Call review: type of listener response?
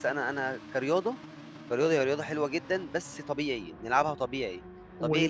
listening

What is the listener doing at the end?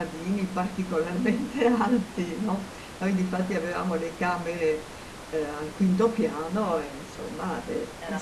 listening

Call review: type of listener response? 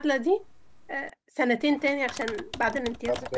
taking over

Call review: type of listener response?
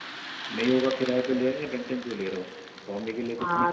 taking over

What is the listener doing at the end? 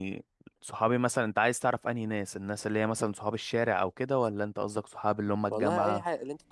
taking over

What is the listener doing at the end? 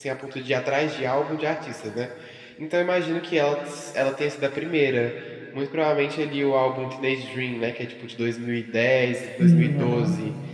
listening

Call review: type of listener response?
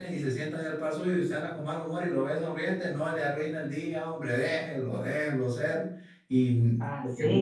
taking over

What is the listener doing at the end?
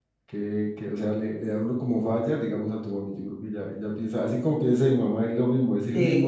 listening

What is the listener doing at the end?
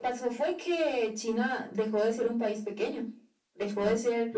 taking over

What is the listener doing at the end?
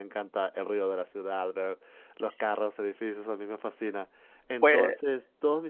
listening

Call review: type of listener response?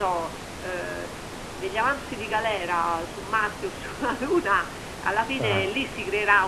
listening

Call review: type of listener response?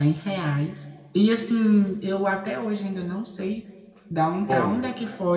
listening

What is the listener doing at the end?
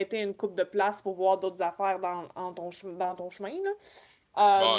taking over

